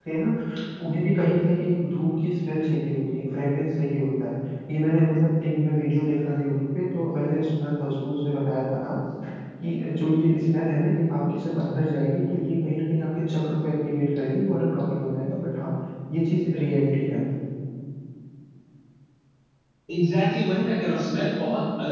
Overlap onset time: none

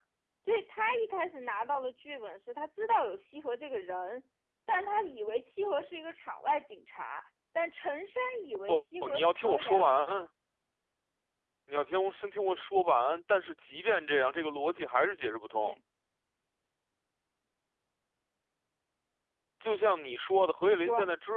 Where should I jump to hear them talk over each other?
8.7 s

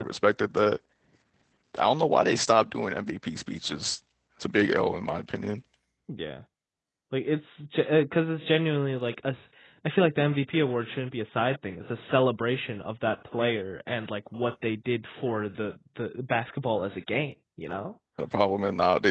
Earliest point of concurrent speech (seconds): none

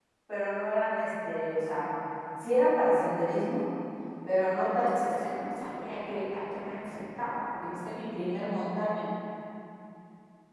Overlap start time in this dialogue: none

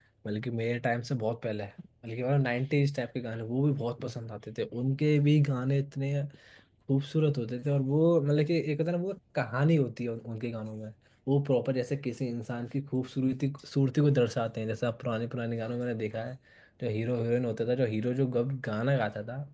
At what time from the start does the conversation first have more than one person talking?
none

